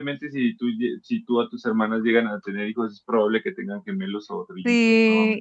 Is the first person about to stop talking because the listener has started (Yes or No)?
Yes